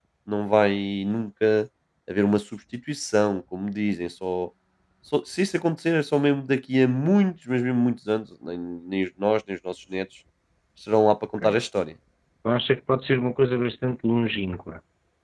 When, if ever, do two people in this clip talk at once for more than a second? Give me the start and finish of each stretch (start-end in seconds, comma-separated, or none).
none